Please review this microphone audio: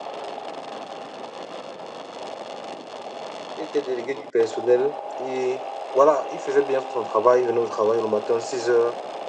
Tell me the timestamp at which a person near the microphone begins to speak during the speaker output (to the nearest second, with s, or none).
4 s